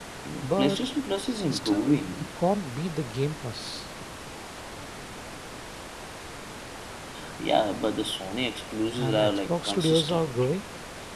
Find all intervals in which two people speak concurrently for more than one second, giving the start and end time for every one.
9.0-10.3

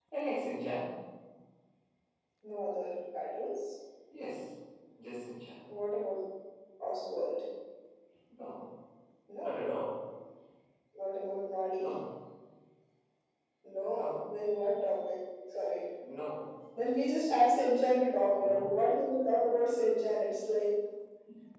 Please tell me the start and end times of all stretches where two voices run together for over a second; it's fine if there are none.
none

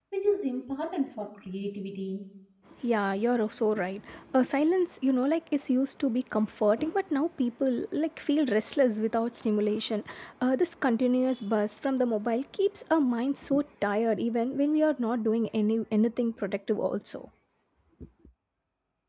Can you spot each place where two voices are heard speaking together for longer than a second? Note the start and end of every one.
none

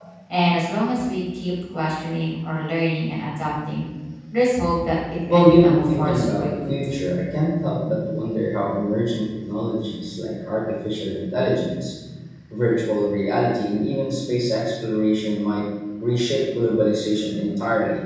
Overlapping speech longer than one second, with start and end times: 5.3-6.9

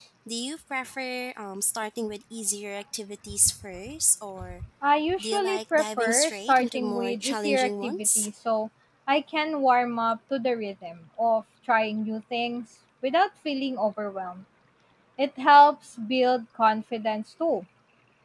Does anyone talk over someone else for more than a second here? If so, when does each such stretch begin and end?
5.2-8.3

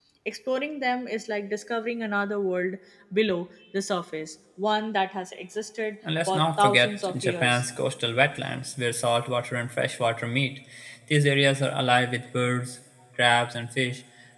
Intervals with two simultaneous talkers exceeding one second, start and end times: 6.3-7.6

